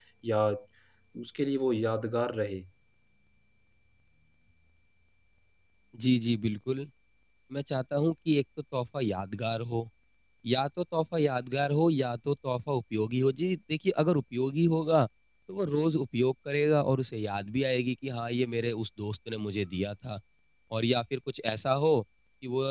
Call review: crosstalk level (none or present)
none